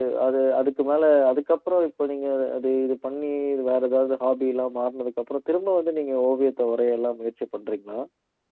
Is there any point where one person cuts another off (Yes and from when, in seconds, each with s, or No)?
No